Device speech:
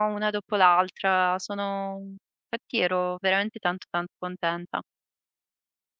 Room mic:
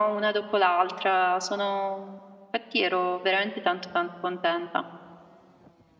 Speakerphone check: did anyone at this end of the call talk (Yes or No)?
No